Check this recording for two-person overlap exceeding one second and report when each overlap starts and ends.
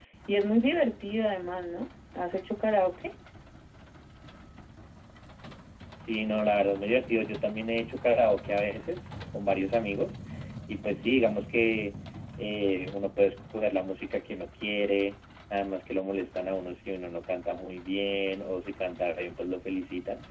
none

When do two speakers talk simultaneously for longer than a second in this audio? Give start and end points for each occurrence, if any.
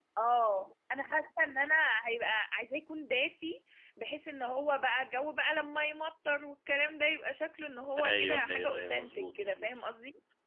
8.1-9.7

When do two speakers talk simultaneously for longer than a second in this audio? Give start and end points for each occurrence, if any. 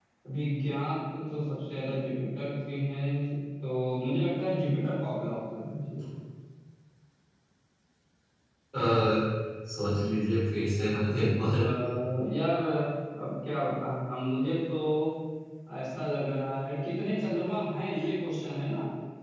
none

